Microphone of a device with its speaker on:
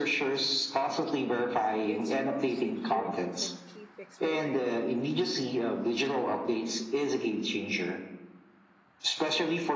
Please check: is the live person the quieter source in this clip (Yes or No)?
Yes